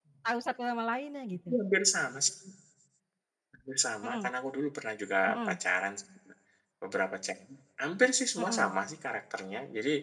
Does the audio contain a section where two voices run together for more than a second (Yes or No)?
No